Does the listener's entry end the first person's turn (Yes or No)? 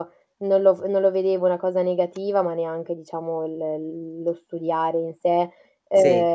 No